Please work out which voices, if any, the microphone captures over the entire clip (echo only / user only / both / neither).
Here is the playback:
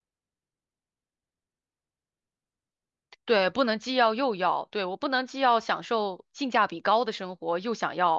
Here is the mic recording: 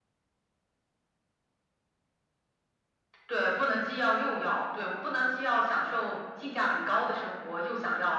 echo only